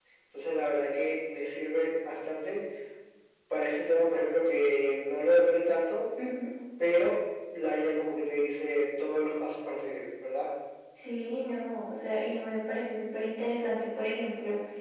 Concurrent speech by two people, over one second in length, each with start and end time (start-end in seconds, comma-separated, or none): none